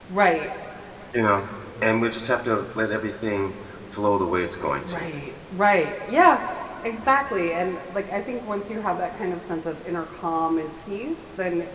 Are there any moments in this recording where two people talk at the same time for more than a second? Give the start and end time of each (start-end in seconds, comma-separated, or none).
none